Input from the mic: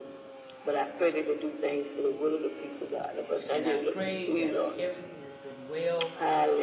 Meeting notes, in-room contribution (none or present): present